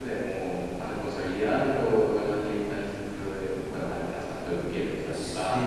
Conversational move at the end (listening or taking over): taking over